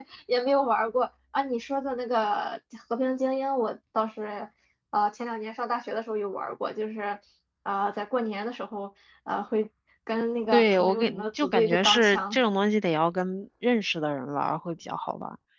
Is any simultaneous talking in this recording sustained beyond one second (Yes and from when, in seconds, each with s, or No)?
Yes, from 10.5 s